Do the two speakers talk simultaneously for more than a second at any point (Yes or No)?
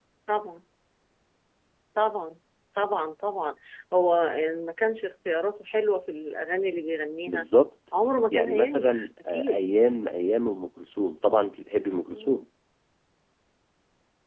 Yes